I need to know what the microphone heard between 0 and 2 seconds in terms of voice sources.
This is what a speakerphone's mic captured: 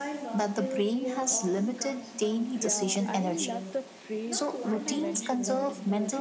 both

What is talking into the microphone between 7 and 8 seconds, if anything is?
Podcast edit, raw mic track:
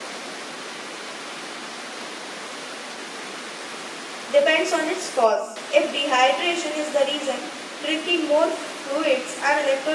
user only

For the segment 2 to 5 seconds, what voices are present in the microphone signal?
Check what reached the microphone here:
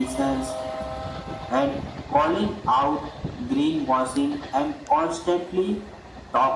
echo only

